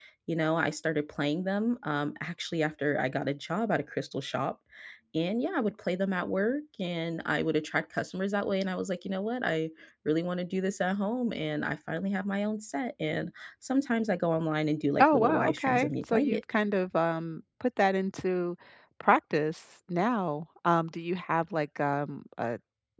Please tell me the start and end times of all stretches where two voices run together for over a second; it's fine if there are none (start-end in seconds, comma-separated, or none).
15.0-16.4